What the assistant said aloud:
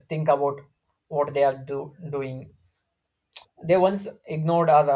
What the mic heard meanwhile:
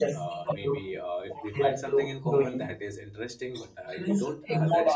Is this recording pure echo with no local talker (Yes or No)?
No